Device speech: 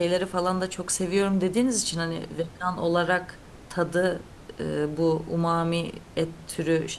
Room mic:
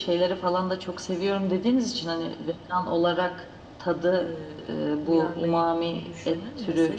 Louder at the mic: echo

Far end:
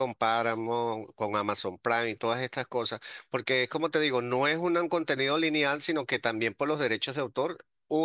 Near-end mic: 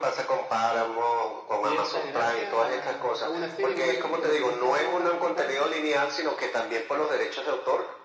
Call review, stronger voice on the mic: echo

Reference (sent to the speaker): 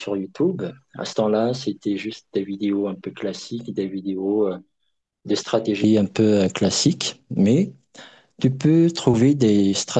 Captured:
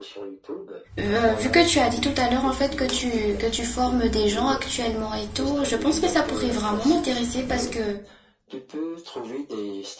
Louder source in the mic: user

